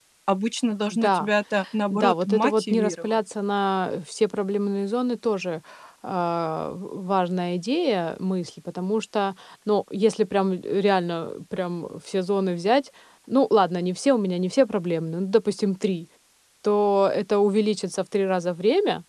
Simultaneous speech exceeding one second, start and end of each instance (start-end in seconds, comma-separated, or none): 1.9-3.2